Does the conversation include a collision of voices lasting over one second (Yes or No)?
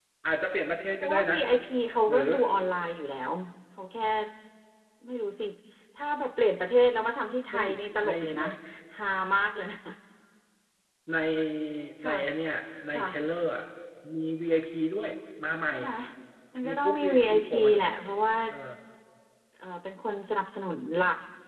Yes